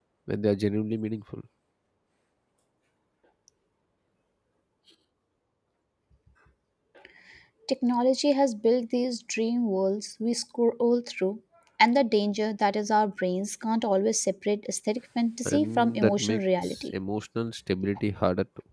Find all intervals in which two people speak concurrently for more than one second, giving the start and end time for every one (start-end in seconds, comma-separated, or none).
15.4-16.9